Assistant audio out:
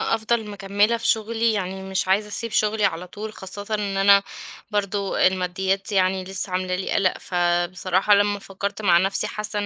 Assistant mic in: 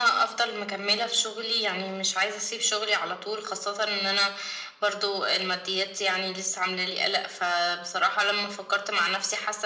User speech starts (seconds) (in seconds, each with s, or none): none